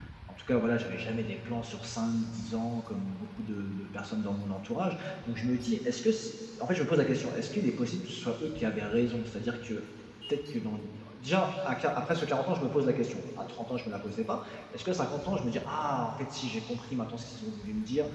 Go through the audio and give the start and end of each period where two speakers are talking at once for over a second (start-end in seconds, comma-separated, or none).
none